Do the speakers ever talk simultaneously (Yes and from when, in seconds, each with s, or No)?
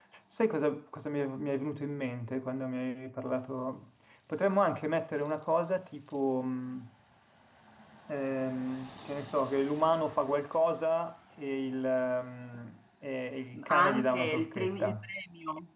Yes, from 13.5 s